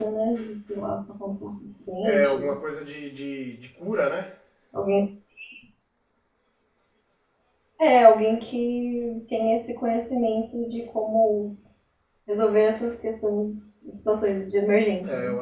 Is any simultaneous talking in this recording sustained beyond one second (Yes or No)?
No